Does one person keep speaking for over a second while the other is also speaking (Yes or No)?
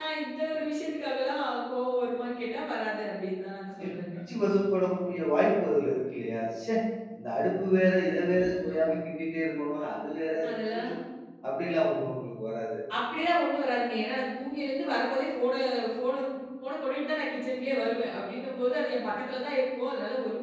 No